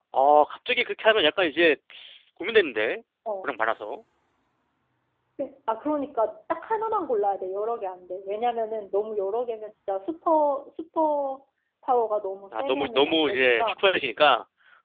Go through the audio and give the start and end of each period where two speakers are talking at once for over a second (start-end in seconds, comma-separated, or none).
12.5-13.7